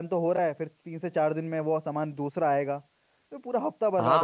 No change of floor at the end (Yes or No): No